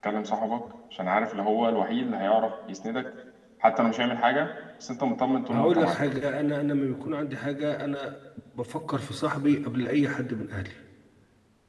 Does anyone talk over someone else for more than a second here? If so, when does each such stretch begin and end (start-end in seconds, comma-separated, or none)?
none